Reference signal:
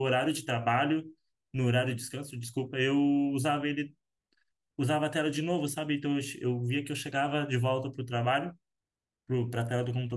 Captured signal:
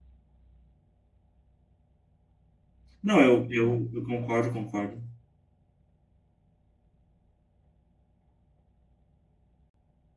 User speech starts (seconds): 3.0 s

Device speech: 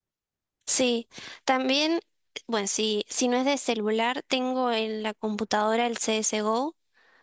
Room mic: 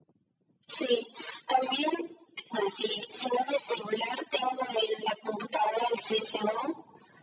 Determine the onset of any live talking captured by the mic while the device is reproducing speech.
none

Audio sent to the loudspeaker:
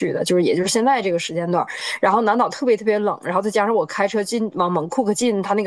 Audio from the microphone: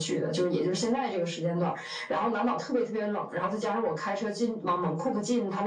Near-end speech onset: none

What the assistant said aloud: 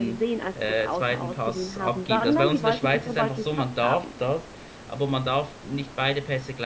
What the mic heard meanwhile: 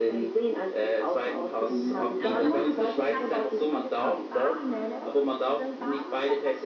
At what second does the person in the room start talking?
1.7 s

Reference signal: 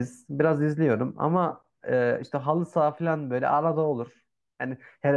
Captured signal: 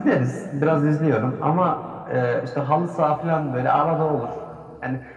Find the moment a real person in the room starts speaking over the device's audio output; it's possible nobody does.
none

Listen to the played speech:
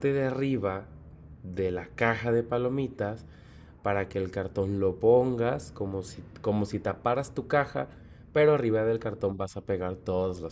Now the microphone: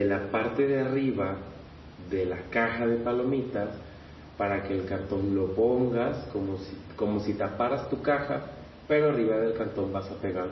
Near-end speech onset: none

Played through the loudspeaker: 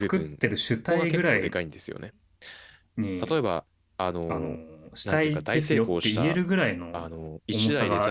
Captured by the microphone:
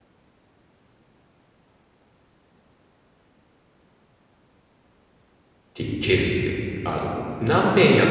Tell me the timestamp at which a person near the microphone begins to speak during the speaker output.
5.7 s

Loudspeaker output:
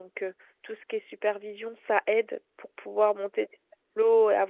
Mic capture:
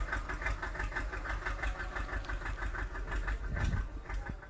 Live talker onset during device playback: none

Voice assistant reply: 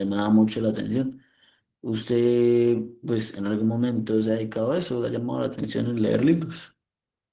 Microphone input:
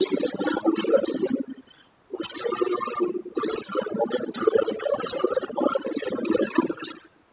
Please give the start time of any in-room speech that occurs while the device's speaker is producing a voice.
none

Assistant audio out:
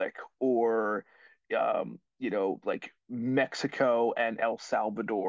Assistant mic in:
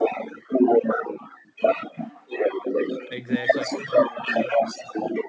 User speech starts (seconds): 3.1 s

